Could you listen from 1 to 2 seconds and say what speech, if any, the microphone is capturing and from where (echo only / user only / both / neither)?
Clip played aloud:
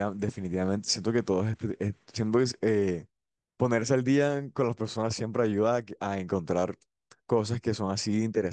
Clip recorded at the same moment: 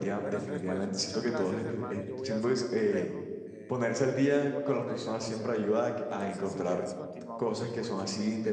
both